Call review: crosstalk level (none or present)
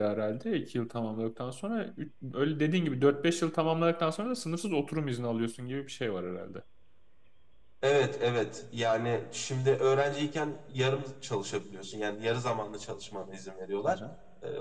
none